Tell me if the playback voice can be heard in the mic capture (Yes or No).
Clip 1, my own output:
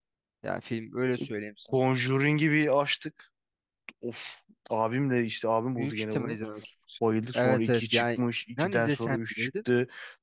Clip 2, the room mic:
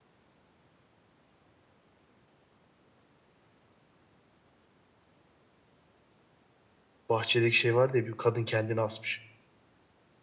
No